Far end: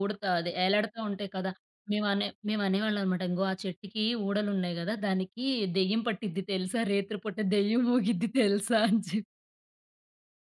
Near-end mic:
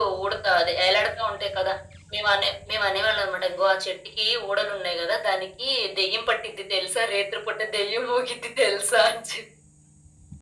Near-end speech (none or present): none